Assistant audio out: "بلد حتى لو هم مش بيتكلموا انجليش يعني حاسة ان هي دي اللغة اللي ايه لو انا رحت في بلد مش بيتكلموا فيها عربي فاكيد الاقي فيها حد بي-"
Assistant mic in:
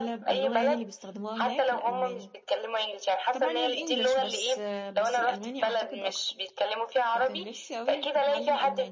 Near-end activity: present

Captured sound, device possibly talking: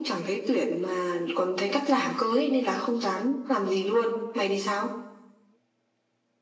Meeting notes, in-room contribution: none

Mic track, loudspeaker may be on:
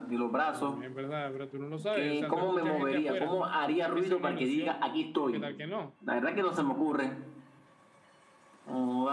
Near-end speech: present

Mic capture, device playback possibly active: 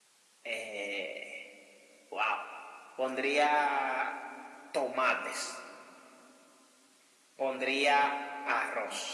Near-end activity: none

